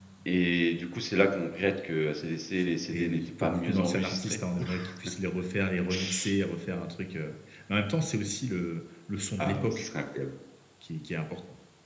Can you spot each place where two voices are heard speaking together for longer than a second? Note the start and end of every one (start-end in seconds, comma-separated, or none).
2.9-4.4